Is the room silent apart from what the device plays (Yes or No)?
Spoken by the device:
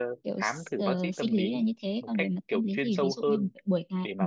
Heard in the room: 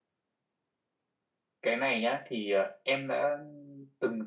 No